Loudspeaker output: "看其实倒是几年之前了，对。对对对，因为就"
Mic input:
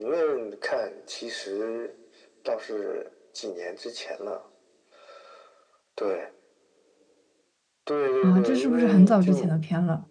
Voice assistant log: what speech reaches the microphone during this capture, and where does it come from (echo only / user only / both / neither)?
both